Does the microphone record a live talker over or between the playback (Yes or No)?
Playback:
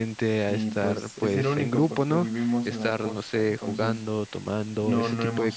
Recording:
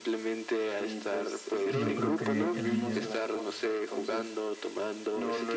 Yes